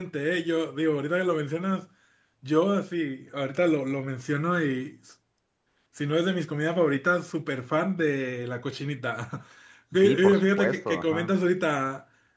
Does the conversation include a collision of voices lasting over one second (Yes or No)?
Yes